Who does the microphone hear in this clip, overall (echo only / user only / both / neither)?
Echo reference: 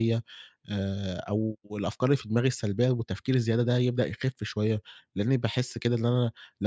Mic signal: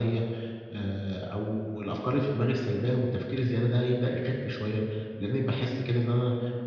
echo only